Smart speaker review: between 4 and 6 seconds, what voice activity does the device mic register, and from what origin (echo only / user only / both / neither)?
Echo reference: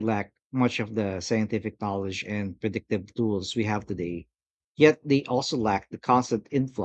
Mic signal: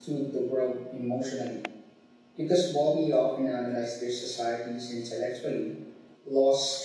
user only